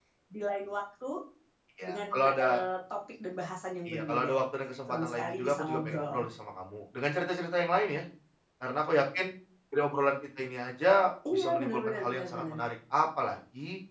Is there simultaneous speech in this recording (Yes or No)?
Yes